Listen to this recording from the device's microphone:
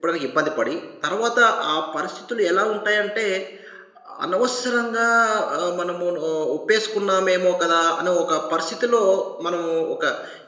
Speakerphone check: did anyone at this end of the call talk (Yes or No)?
Yes